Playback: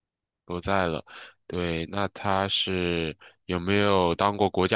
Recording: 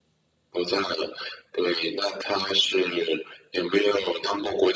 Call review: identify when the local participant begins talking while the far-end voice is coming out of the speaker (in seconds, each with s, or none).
none